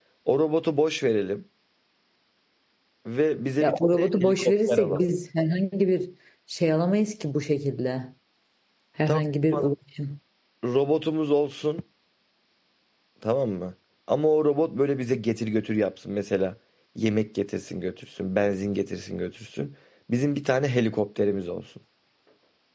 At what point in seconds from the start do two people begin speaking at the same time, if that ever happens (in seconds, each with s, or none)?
3.6 s